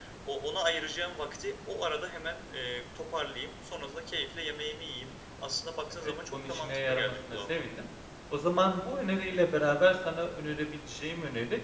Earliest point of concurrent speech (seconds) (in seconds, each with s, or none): 6.0 s